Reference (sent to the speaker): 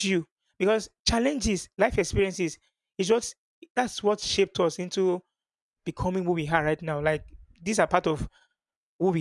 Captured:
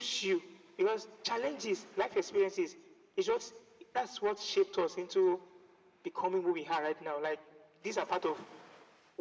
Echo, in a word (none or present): present